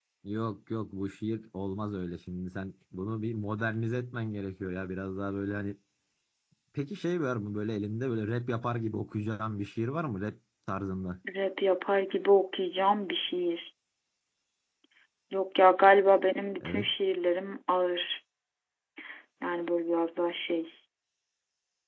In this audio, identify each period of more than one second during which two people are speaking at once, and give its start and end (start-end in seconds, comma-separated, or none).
none